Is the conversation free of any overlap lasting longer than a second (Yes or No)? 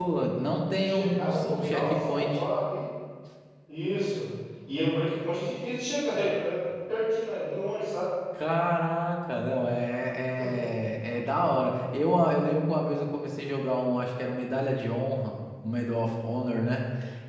No